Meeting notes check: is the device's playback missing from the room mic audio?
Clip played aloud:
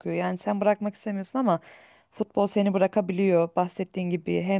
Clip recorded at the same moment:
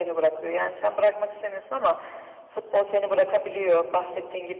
No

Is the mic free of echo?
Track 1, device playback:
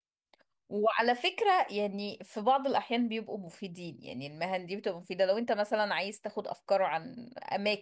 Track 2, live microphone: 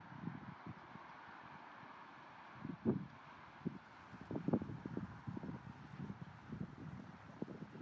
Yes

